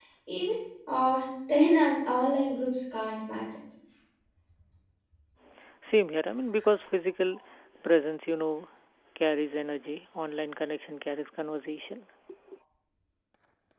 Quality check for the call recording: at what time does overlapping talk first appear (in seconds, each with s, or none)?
none